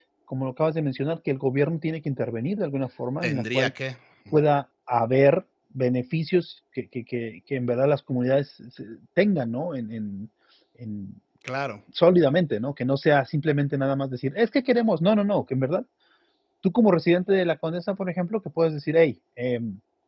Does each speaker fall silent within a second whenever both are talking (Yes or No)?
Yes